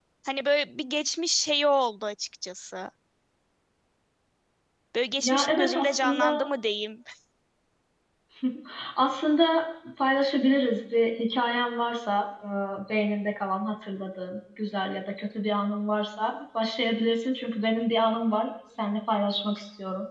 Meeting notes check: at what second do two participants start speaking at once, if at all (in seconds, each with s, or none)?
5.2 s